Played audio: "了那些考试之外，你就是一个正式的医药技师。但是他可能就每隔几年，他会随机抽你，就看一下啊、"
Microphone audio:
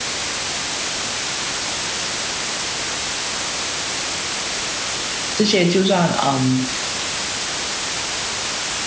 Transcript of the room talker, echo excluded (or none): 这些就算嗯